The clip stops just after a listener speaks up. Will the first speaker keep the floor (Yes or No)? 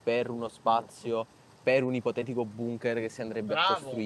No